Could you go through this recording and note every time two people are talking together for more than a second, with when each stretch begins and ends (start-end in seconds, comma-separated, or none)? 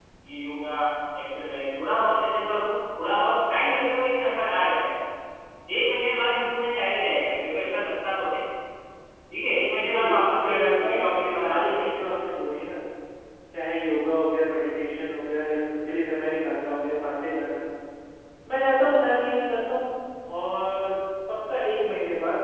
9.8-11.9